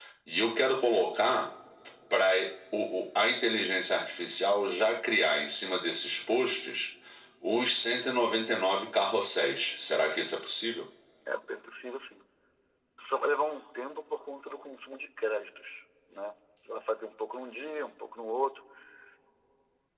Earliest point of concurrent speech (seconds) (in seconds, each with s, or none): none